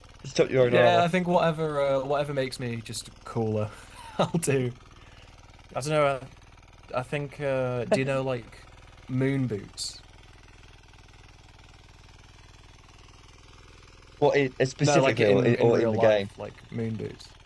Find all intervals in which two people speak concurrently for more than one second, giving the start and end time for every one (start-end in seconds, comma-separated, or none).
14.8-16.2